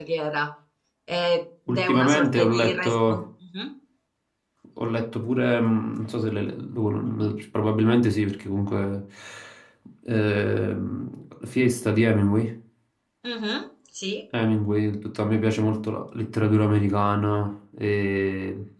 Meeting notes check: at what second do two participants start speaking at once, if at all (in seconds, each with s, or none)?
1.7 s